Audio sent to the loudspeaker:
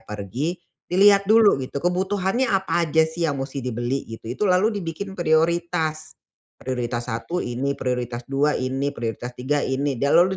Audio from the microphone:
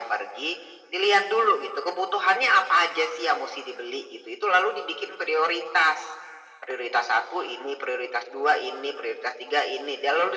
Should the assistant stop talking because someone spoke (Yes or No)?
No